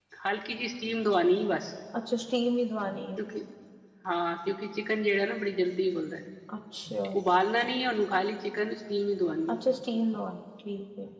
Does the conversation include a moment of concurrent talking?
No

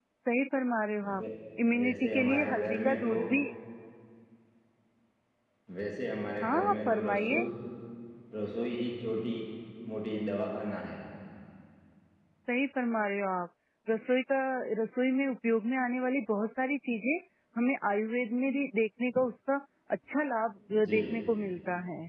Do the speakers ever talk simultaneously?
Yes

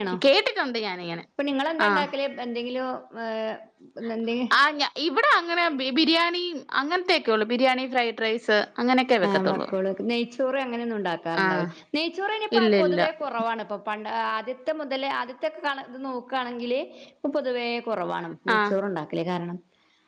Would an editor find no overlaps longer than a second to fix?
Yes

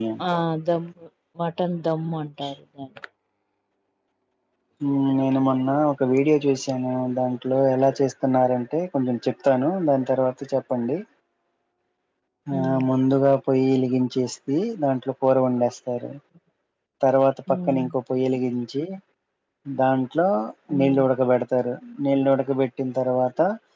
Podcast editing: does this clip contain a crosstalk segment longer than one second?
No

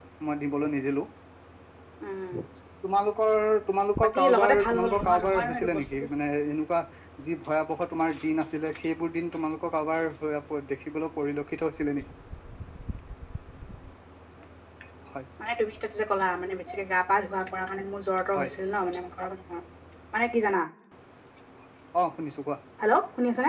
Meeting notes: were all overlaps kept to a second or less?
No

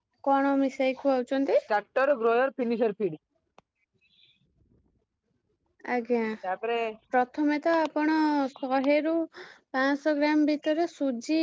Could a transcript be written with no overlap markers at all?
Yes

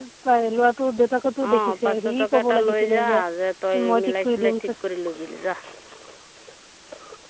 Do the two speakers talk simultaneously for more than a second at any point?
Yes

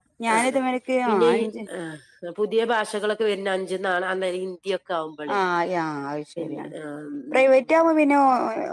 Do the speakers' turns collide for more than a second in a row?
No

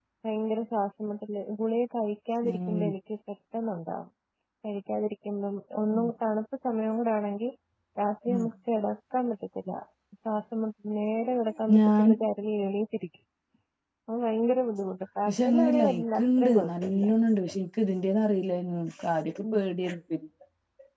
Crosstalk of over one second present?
Yes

